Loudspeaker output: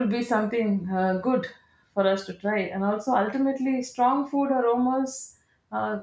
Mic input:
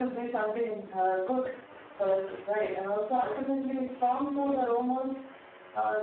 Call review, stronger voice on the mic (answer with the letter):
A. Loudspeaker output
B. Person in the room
A